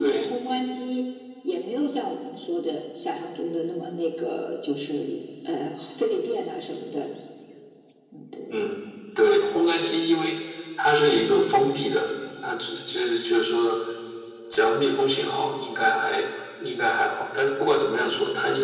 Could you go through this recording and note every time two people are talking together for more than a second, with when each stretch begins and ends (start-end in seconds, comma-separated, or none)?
none